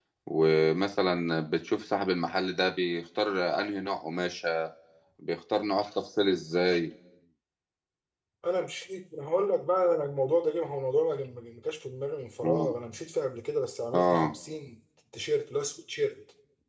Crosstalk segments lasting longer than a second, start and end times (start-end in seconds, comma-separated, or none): none